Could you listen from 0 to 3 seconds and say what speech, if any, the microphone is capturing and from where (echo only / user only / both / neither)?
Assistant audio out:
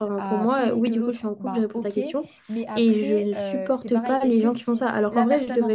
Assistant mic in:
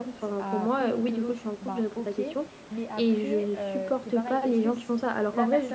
echo only